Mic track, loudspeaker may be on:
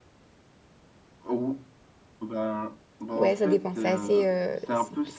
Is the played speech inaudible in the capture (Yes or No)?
No